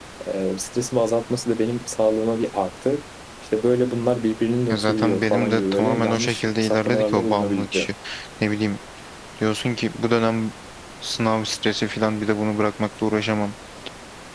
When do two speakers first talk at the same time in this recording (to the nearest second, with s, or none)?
5 s